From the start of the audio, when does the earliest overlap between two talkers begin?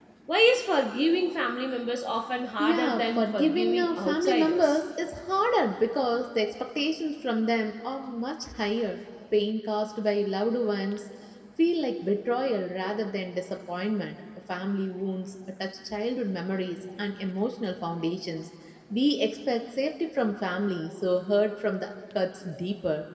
2.6 s

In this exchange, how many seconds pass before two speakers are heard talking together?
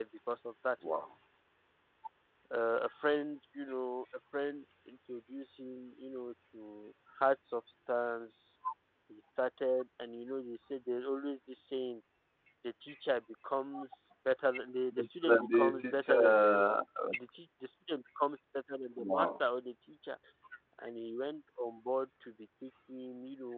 14.9 s

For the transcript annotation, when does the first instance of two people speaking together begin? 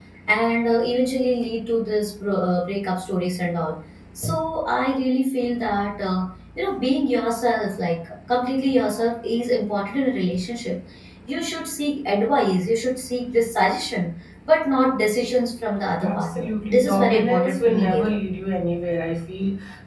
16.0 s

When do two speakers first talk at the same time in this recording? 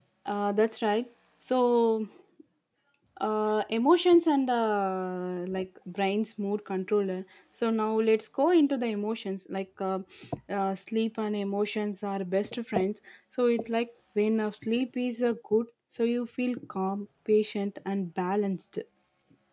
none

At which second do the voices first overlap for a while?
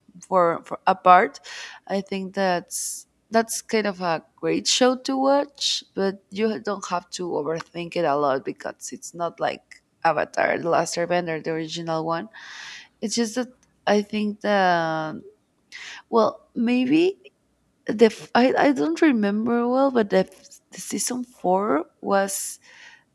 none

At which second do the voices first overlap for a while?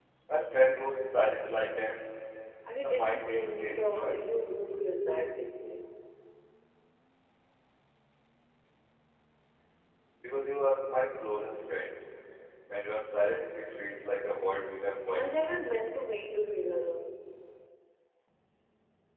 2.8 s

